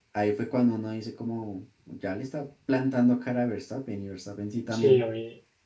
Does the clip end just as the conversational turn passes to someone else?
Yes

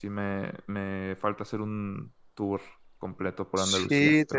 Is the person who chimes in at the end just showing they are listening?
No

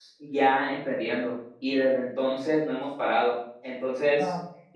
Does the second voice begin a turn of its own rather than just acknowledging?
No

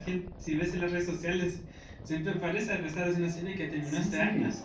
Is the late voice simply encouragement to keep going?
No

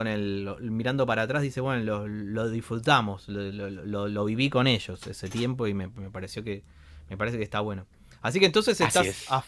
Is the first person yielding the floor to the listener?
No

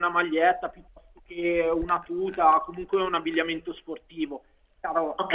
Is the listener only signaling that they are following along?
No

